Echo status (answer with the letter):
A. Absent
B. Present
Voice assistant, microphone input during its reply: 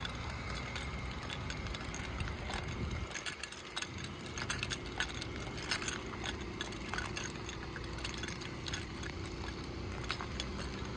A